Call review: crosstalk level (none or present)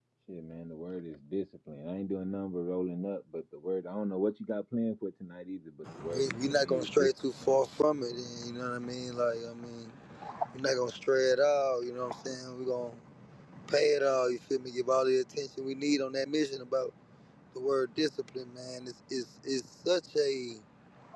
present